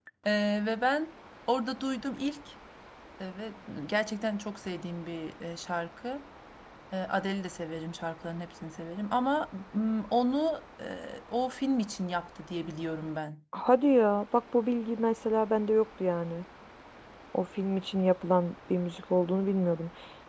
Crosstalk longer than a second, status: none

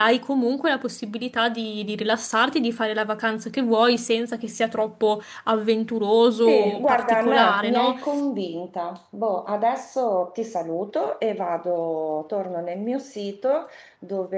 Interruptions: present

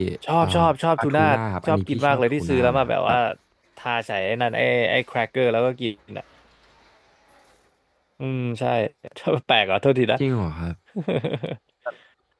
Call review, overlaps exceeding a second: present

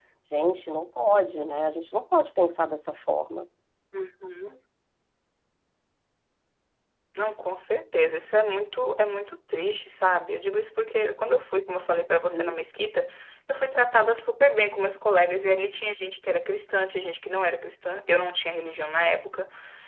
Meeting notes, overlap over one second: none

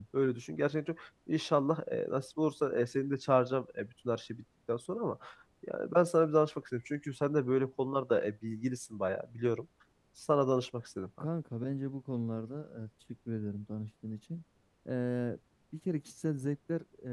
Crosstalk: none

